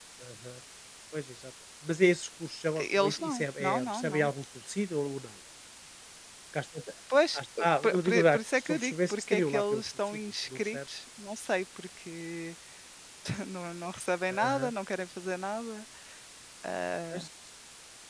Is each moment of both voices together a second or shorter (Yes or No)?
No